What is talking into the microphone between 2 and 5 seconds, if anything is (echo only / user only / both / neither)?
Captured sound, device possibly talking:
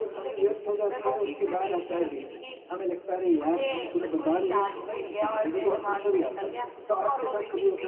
echo only